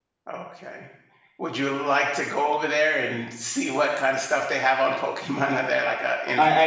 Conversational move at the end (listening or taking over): taking over